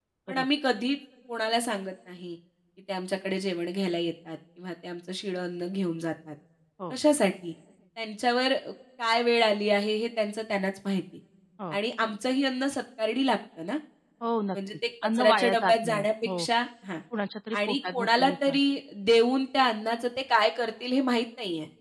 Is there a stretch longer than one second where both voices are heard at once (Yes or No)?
Yes